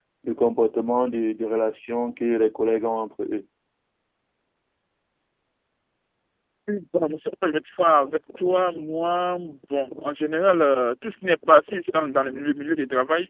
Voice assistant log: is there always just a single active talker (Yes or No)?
Yes